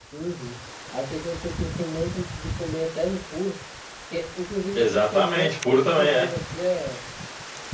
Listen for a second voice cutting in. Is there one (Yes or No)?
Yes